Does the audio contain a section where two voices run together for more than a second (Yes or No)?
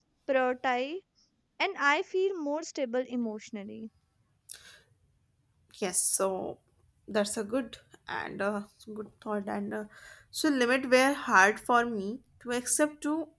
No